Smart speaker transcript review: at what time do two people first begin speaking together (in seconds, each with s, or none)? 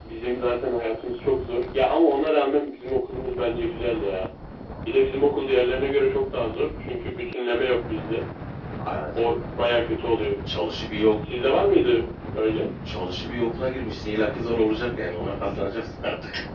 none